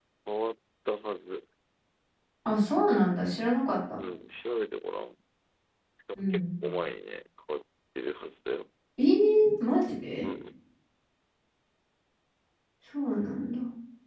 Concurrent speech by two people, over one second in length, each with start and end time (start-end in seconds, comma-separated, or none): none